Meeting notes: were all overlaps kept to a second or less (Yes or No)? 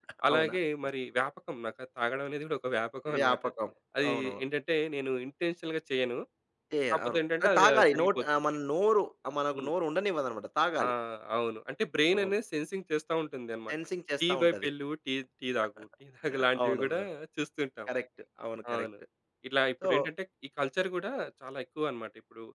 No